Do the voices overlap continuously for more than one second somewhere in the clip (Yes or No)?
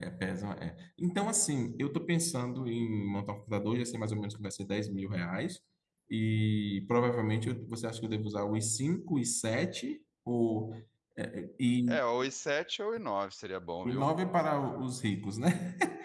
No